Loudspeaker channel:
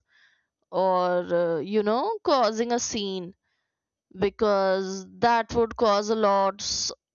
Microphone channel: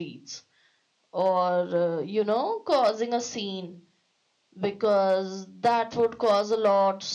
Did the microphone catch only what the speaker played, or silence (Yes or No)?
Yes